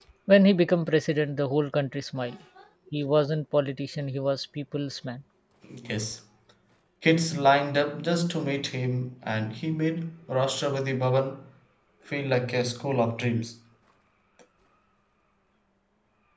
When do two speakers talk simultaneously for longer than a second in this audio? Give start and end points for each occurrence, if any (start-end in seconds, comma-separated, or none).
none